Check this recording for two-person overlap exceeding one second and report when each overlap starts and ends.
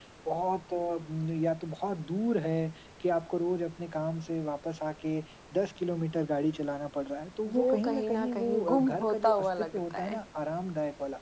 7.5-10.2

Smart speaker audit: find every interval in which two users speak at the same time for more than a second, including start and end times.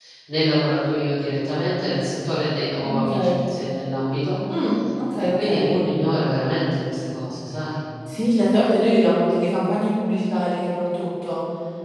none

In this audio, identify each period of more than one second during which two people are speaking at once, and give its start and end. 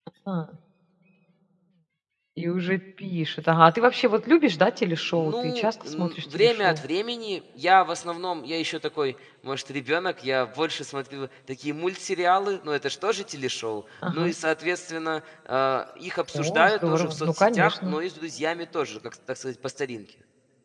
5.2-6.8, 16.3-18.0

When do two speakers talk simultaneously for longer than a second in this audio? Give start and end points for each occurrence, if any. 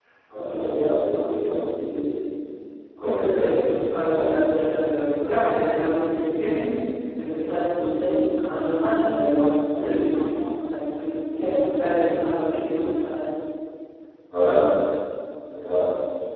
3.0-4.6

